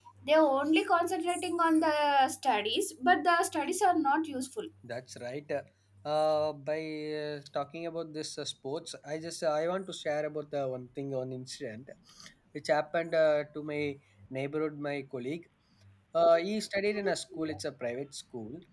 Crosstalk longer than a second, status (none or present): none